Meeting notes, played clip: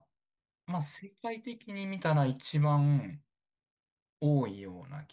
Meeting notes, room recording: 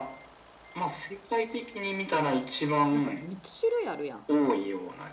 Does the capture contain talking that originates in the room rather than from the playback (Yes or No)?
Yes